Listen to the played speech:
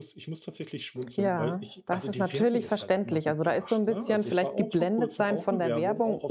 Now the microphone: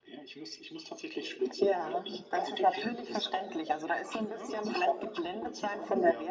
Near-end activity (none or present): none